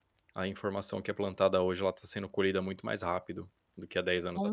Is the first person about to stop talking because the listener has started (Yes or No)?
Yes